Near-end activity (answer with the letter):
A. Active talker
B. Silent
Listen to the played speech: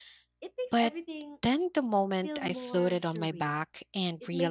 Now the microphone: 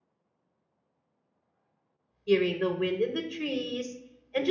A